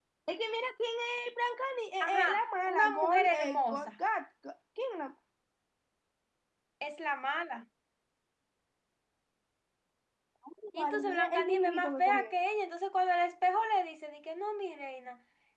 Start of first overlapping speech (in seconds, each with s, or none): 2.0 s